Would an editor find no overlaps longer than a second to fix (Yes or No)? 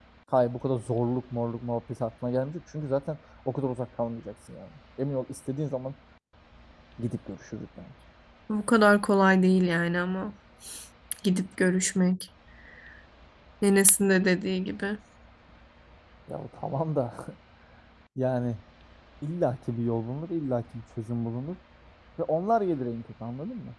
Yes